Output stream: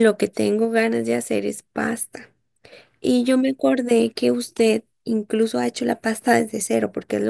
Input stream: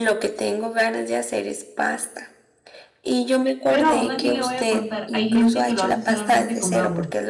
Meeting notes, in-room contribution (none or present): present